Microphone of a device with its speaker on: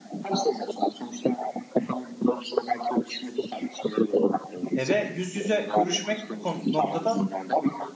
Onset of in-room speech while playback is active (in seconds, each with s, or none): 4.7 s